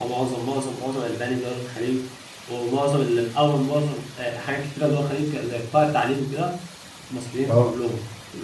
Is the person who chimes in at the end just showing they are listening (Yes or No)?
Yes